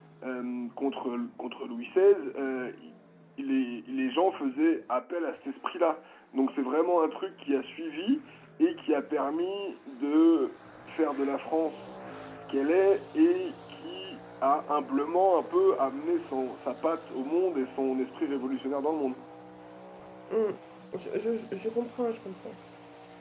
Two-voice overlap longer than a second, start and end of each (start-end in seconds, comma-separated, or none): none